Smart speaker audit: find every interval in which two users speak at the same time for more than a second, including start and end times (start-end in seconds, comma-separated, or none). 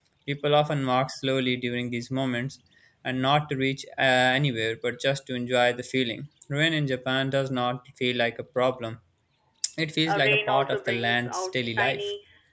10.1-12.0